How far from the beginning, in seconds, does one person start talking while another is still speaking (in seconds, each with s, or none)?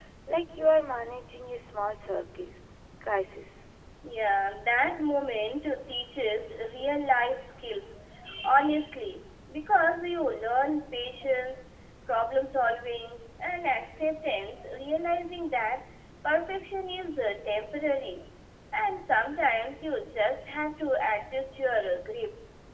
none